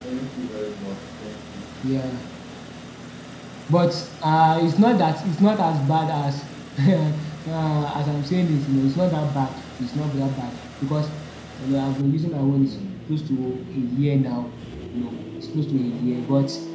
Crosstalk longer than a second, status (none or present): none